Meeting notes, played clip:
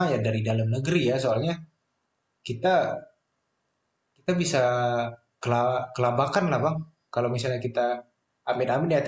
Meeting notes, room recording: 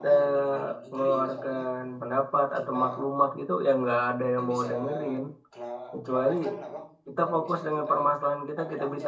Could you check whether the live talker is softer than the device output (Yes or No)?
No